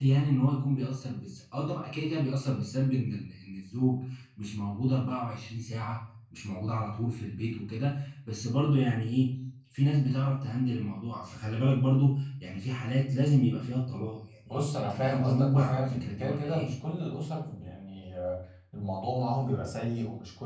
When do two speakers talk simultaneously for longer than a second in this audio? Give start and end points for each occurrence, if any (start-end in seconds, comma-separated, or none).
14.7-16.7